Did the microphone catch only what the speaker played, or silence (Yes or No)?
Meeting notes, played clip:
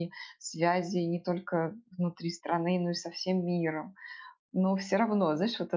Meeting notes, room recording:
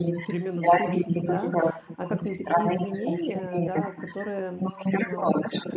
No